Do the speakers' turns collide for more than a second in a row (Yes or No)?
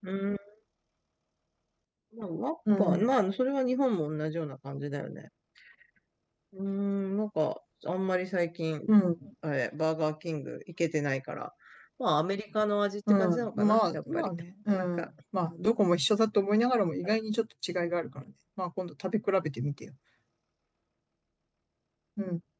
Yes